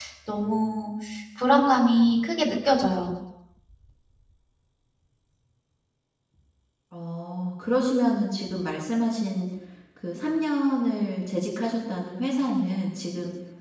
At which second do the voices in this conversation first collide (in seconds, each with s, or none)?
none